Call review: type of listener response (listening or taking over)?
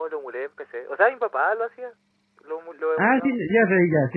taking over